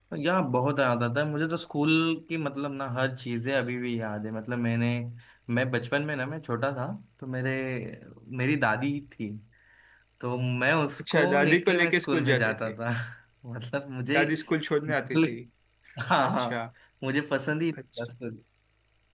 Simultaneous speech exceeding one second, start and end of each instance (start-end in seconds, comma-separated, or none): 11.0-12.7